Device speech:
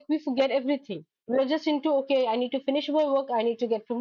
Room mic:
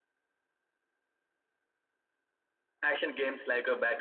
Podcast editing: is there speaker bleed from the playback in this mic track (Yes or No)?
No